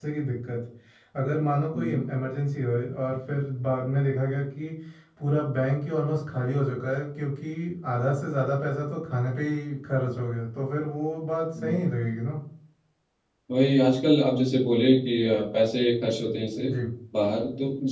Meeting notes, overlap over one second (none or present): none